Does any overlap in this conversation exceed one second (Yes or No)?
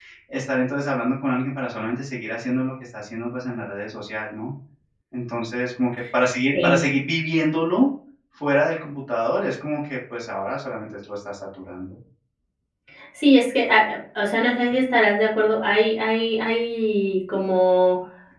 No